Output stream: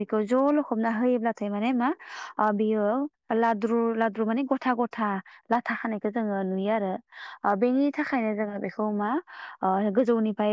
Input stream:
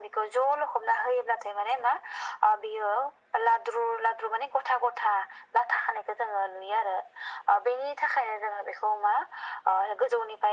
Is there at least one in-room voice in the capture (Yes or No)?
No